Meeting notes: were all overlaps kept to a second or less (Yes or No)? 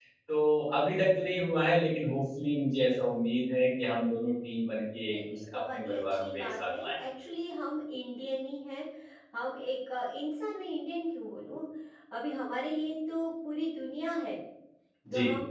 No